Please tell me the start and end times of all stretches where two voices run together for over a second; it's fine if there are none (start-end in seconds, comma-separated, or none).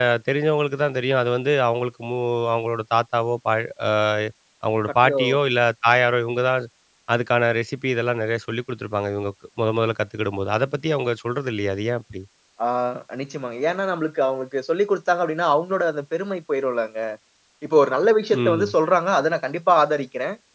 none